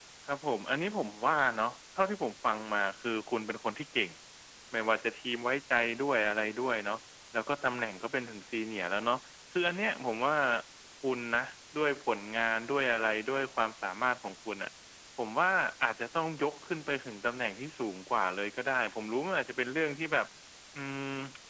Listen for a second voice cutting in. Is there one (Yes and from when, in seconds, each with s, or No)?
No